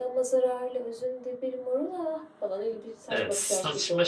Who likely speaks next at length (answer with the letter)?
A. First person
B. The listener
B